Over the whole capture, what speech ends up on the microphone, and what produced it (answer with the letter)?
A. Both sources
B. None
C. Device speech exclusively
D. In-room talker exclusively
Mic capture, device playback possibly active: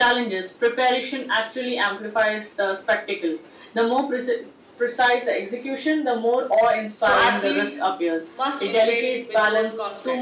A